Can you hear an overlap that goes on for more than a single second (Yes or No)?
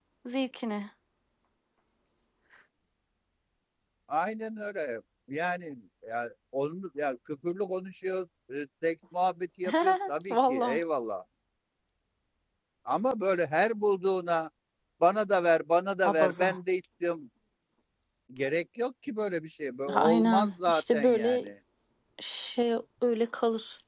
Yes